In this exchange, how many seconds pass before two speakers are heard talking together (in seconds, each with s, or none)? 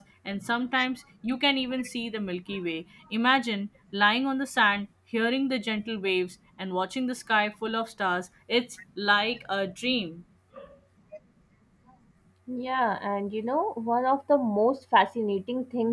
none